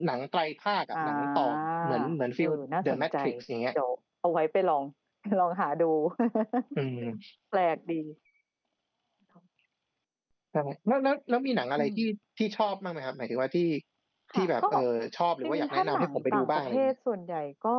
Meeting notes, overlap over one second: present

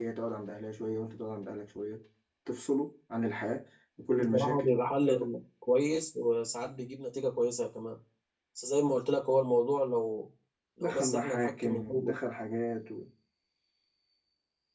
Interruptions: present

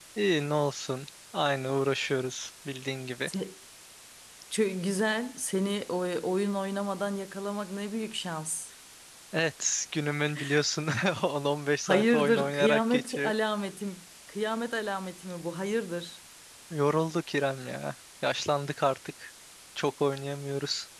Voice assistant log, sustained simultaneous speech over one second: present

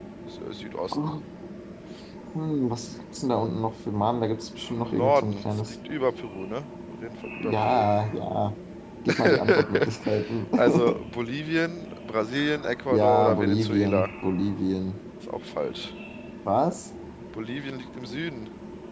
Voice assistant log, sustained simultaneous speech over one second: present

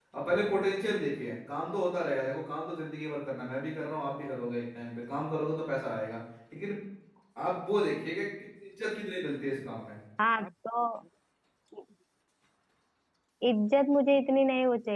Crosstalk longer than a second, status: none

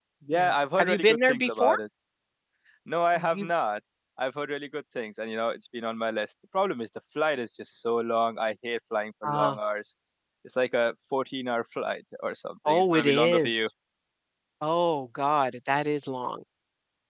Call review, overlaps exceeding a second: present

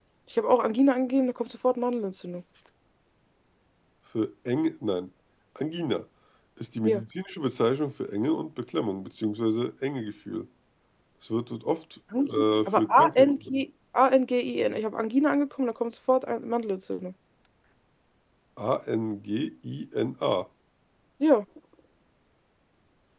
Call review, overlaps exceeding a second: present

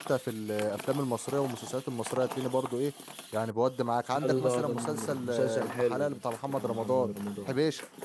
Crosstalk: present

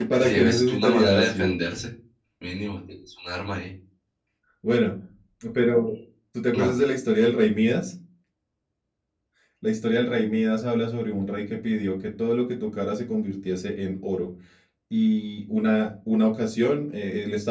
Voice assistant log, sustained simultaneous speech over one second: present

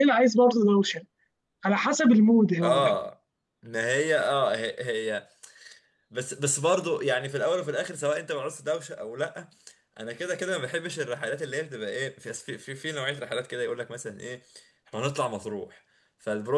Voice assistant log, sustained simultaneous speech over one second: none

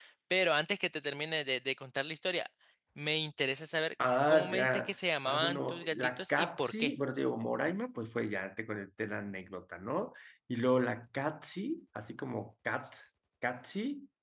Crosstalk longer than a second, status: present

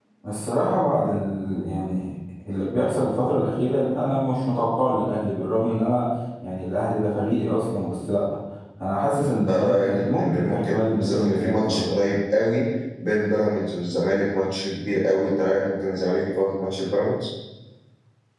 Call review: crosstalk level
present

